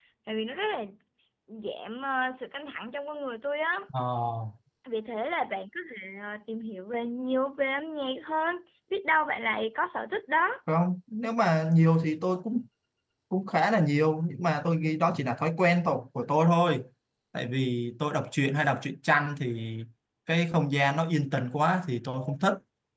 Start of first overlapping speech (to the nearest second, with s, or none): none